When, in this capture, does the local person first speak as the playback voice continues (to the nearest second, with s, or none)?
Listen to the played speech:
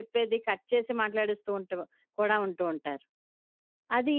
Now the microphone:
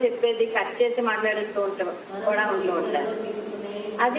2 s